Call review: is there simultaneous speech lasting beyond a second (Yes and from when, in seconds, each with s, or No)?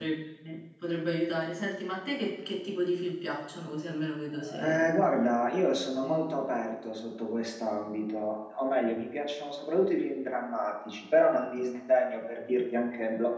No